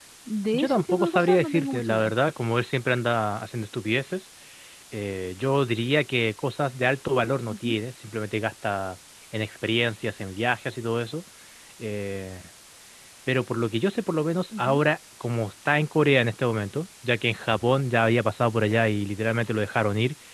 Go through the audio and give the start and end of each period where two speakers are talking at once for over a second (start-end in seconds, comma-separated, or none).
0.5-2.1